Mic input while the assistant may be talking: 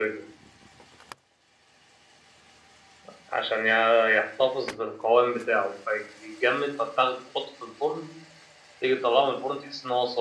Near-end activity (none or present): none